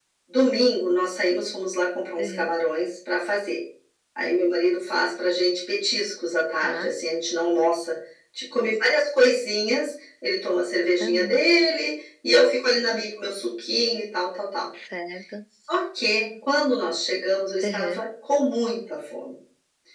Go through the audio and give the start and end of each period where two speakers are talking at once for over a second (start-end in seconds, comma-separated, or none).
none